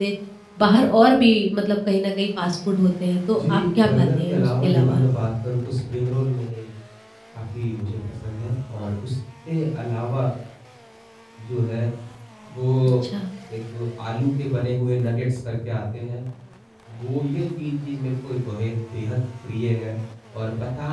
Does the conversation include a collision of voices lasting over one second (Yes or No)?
Yes